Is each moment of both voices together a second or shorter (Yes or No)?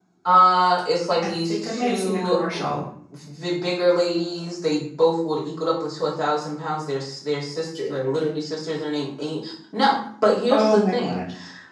No